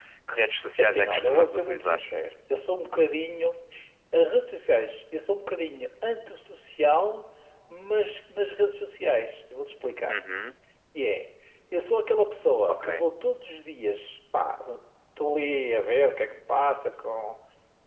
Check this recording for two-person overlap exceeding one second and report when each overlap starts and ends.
0.8-2.0

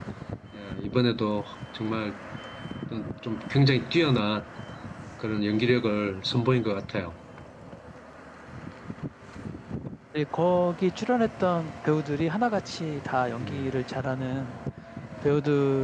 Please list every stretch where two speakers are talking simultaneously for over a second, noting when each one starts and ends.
none

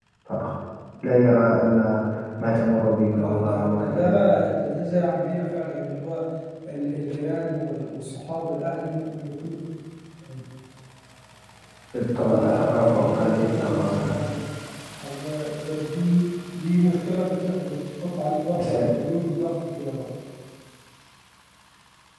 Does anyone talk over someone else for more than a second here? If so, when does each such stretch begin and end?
3.1-4.5, 12.2-14.2

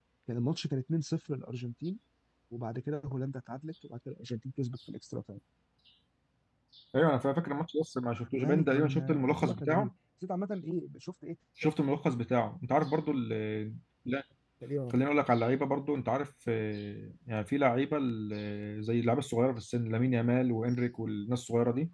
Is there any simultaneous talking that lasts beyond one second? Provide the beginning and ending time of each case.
8.3-9.9

